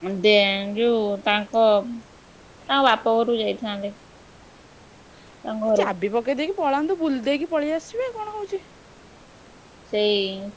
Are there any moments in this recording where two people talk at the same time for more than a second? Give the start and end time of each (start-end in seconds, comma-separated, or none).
none